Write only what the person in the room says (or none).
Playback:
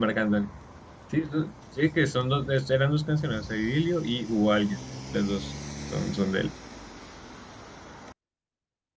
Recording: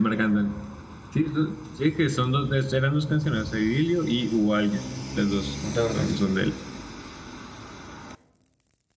Entonces,